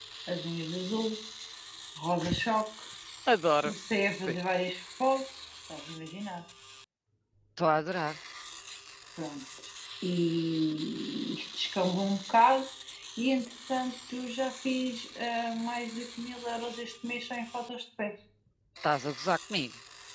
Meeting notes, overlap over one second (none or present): none